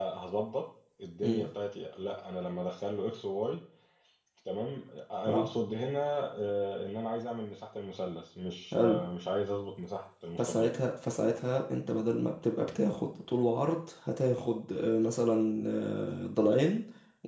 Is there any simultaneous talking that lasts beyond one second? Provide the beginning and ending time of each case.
none

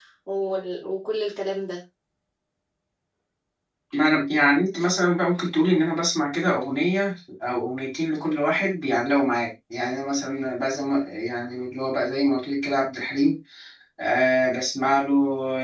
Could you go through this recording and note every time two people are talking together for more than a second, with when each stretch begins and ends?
none

